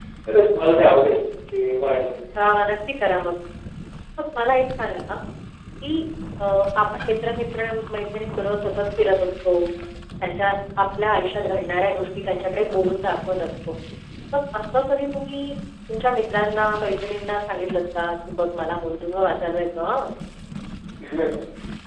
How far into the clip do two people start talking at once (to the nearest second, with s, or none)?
none